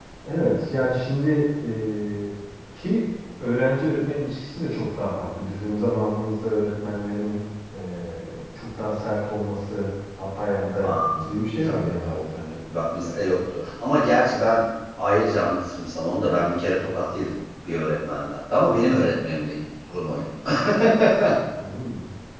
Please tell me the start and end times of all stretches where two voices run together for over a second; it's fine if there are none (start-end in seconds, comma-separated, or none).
11.6-13.4